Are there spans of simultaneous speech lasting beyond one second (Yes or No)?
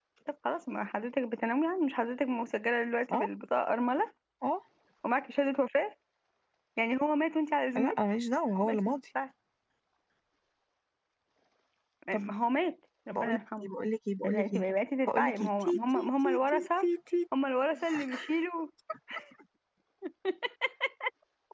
Yes